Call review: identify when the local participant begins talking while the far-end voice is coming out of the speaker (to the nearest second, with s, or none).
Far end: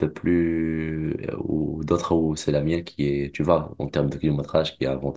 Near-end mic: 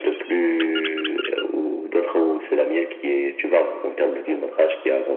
none